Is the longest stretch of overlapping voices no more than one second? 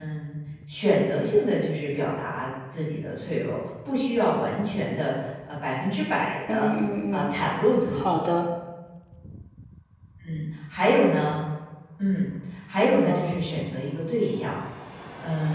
Yes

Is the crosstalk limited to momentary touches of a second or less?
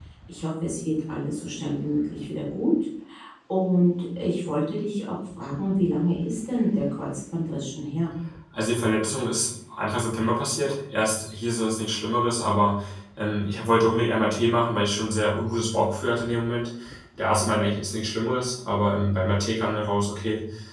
Yes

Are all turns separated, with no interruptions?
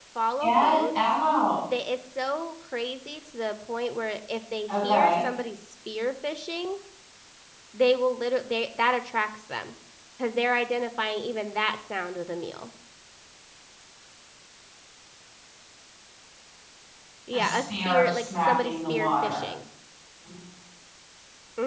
No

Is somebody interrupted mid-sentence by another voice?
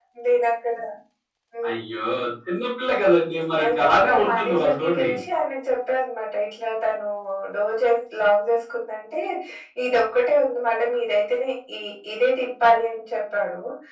Yes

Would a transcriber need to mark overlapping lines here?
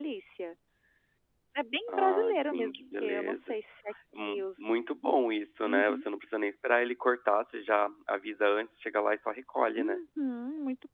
Yes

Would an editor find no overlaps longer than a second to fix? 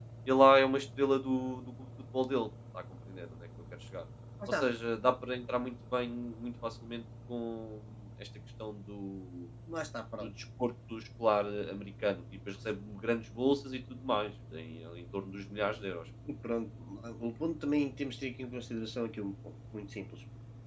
Yes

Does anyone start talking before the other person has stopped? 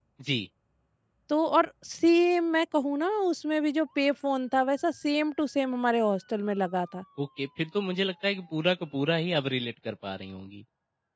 No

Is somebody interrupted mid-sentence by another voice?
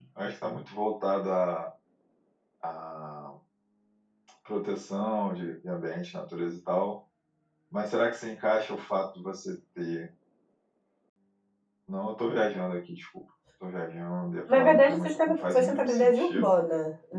Yes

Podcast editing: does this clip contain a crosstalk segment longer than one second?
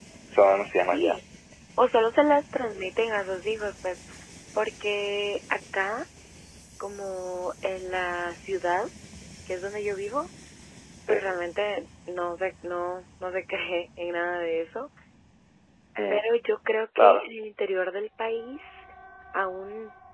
No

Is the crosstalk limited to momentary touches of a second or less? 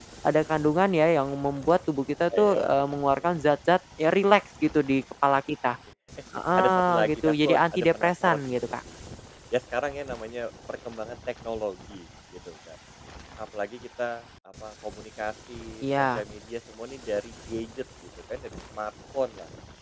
No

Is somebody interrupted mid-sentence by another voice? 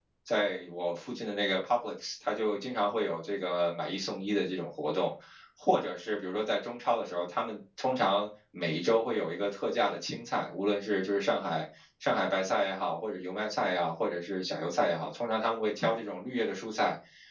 No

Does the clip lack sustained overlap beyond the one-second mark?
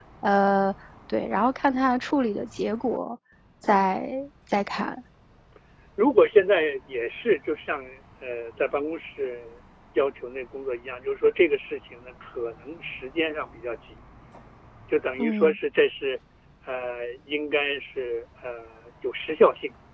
Yes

